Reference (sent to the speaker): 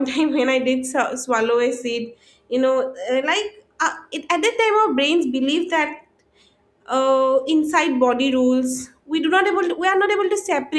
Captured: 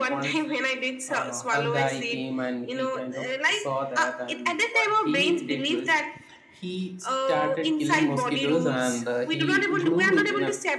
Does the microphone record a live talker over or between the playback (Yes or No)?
Yes